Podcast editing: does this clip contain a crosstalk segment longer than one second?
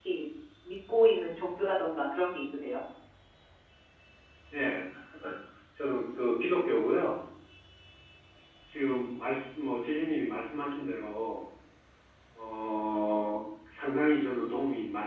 No

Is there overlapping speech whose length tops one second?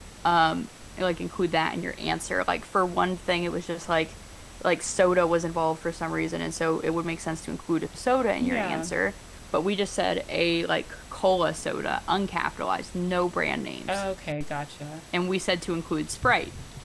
No

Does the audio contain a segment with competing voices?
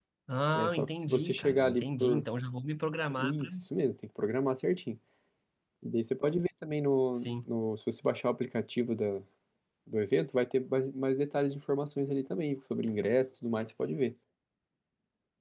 Yes, from 0.5 s

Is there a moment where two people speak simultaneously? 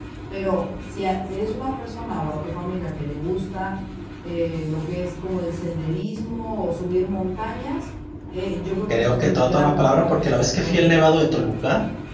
Yes, from 8.9 s

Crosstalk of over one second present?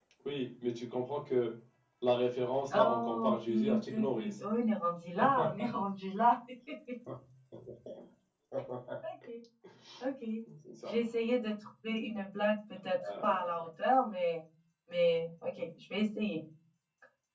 Yes, from 2.7 s

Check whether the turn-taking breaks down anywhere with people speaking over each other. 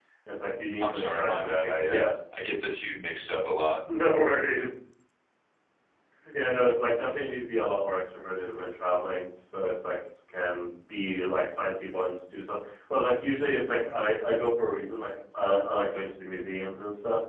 Yes, from 0.8 s

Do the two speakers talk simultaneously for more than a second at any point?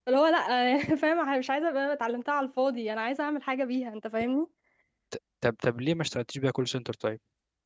No

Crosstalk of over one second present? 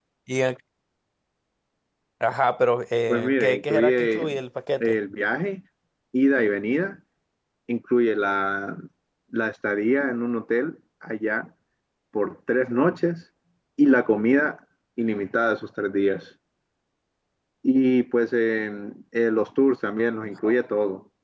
Yes, from 3.1 s

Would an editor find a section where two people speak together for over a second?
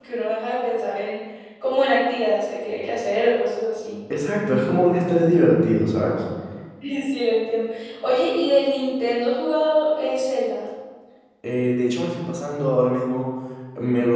No

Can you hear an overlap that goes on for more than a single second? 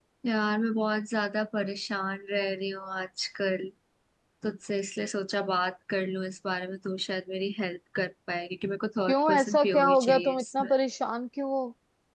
Yes, from 9.1 s

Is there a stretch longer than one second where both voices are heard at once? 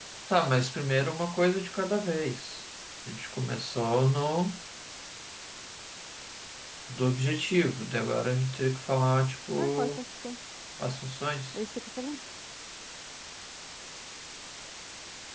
No

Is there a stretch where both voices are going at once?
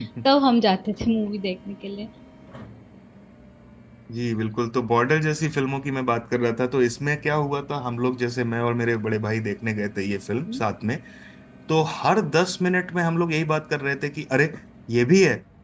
No

